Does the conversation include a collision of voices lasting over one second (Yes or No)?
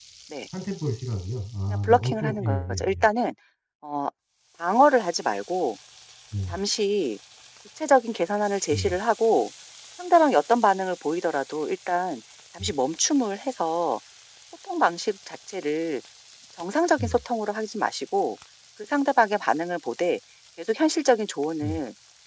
Yes